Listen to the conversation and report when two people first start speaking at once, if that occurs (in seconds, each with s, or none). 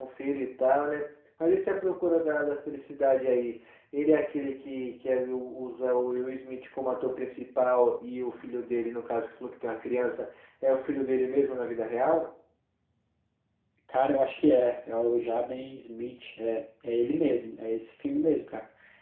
none